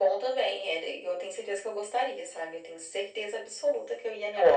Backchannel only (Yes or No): No